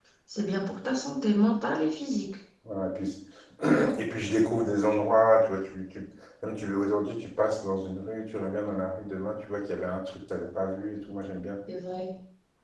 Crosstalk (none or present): none